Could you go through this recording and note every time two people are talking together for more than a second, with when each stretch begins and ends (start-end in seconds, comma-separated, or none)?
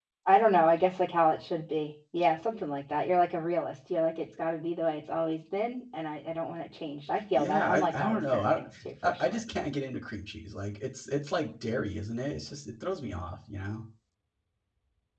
7.3-8.6